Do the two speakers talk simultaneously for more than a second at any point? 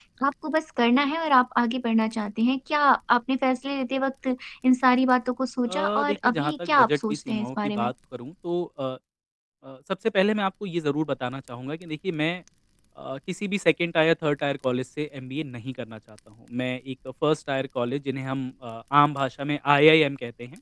Yes, from 5.7 s

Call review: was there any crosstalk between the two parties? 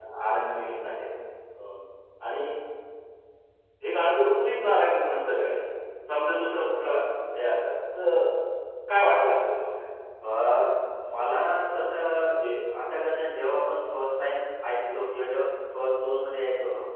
No

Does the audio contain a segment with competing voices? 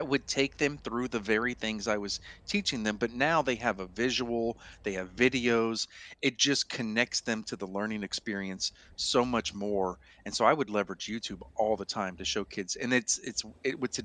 No

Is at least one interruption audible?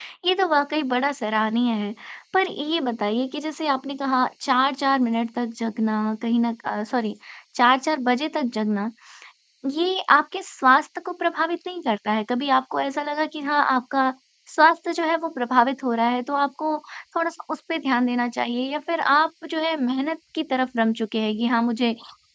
No

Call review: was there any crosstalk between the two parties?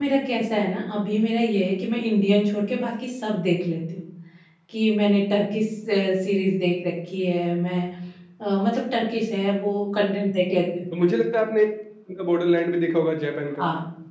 No

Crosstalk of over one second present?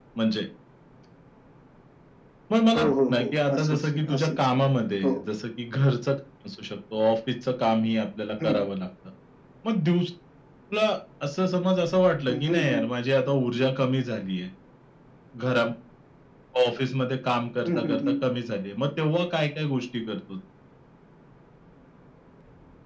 Yes, from 2.8 s

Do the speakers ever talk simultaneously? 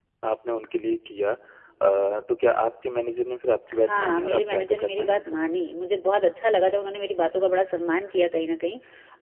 Yes, from 3.7 s

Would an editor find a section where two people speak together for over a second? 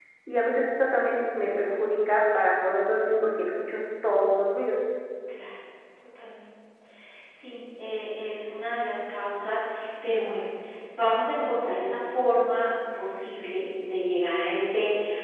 No

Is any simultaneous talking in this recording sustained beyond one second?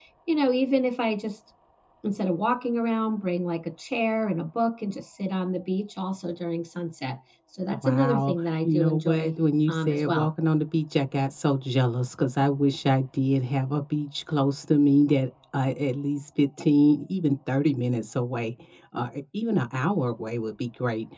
Yes, from 7.7 s

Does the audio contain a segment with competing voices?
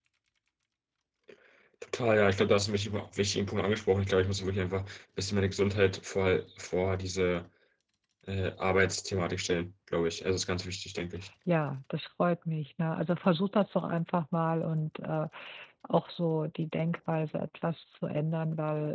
No

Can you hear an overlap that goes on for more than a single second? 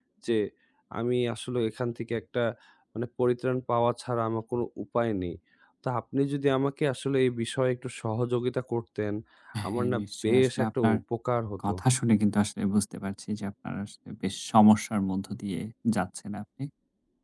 Yes, from 9.7 s

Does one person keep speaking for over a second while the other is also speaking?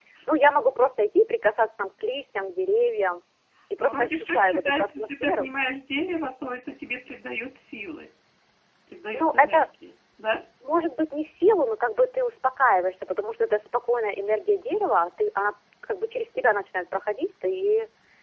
Yes, from 3.8 s

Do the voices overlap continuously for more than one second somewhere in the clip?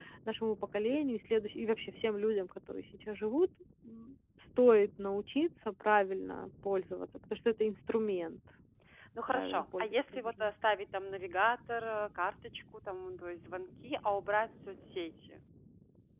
Yes, from 9.3 s

